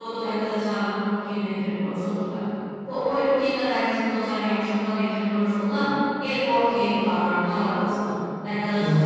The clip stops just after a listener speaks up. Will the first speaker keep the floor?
Yes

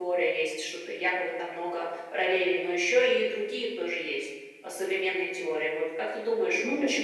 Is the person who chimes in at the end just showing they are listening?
Yes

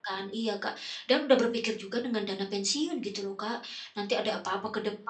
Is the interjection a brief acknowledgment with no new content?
Yes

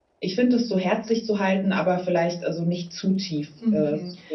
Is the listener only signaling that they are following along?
No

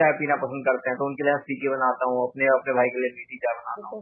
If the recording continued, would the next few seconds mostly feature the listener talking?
Yes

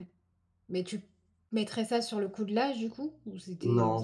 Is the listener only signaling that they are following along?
No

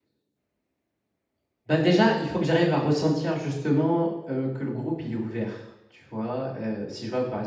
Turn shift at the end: No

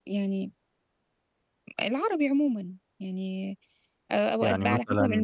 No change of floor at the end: Yes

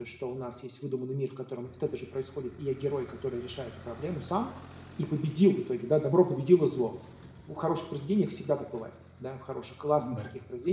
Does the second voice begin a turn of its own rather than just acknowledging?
No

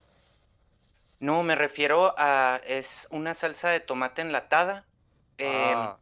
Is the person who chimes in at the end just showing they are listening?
Yes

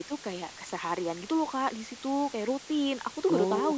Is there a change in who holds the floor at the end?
Yes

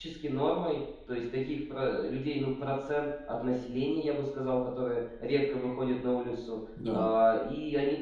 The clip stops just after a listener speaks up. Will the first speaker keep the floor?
Yes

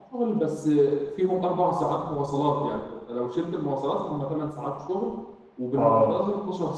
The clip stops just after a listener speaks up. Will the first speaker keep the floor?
Yes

